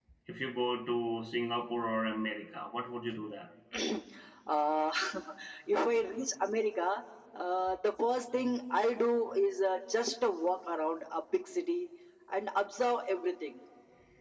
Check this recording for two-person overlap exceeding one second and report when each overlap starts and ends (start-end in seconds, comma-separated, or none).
none